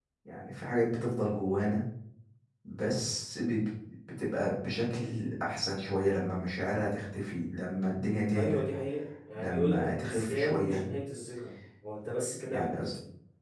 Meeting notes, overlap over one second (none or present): present